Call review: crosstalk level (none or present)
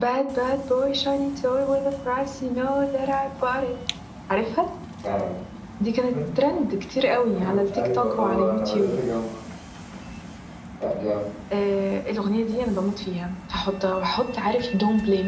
present